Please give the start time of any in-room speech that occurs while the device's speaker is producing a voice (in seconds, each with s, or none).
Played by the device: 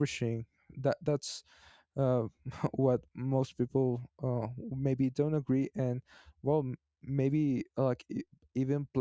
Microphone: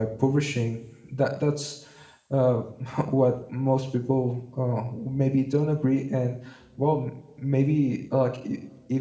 none